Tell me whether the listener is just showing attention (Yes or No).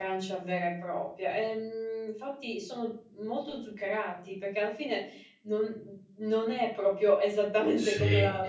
No